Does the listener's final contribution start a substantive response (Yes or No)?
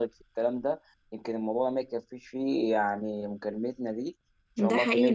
Yes